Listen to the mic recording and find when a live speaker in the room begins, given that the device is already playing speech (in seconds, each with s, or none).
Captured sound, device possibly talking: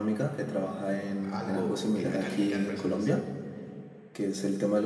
1.2 s